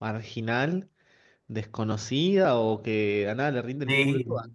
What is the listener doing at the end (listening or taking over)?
listening